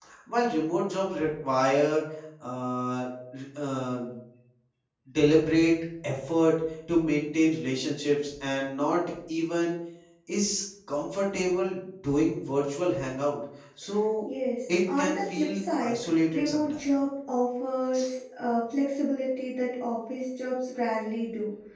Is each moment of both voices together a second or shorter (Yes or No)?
No